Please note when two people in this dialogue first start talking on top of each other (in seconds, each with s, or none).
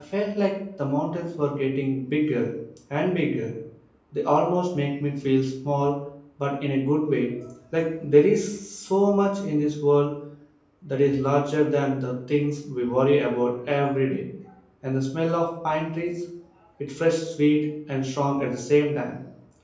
none